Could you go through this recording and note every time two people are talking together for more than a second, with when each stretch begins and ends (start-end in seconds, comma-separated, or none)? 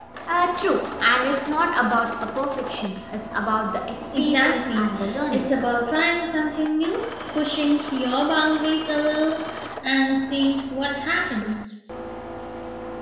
4.2-5.4